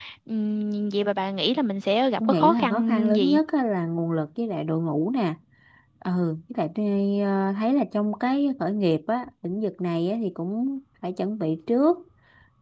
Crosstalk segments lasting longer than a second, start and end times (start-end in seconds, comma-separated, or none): 2.2-3.4